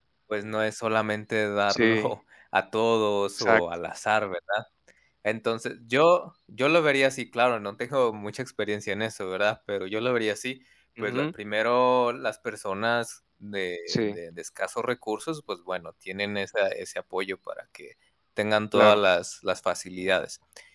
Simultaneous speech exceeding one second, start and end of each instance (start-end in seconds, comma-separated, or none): none